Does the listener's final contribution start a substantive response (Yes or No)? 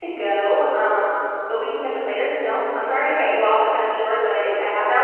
Yes